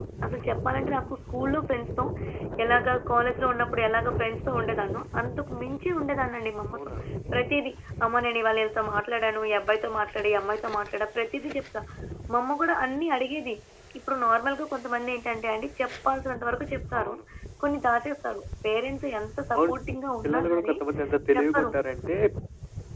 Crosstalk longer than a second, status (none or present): none